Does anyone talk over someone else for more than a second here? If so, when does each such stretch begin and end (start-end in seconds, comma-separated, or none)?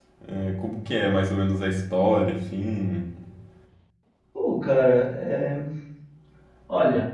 none